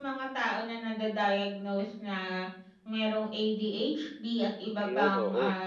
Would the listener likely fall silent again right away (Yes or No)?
Yes